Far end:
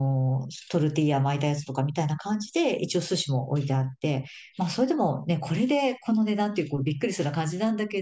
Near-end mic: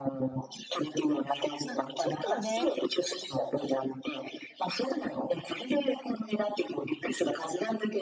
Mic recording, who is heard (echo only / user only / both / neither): both